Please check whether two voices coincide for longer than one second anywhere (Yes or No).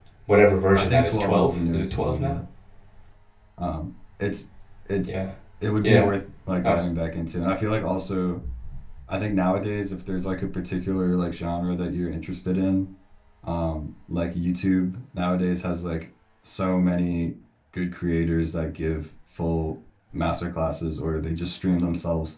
Yes